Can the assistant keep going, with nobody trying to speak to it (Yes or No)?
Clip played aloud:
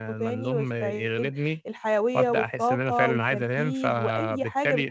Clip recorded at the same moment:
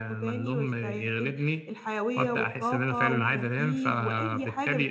Yes